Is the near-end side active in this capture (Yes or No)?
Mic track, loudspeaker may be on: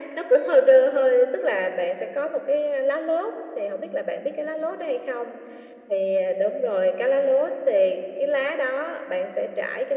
No